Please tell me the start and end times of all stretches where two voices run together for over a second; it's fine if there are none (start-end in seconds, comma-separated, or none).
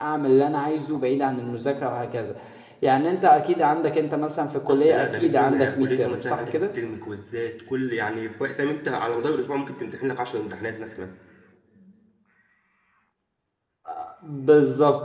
4.7-6.7